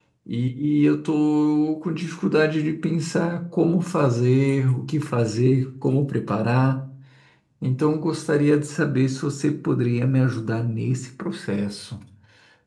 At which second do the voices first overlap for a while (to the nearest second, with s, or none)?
none